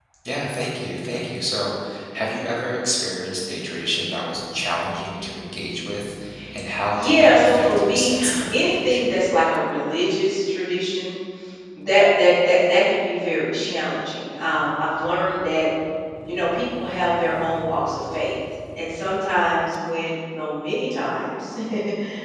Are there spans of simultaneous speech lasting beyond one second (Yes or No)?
Yes